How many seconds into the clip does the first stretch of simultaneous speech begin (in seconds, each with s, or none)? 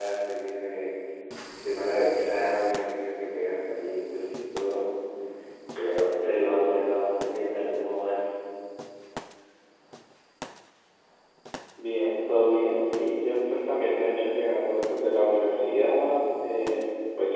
none